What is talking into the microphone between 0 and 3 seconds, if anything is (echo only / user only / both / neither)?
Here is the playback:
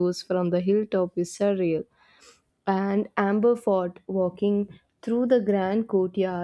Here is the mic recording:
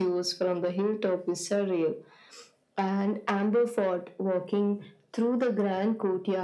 echo only